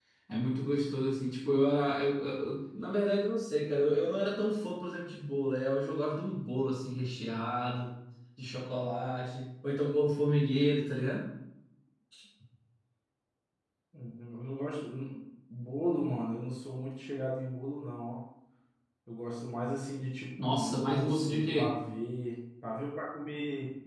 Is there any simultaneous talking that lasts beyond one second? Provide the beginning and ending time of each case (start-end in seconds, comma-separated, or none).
20.4-21.8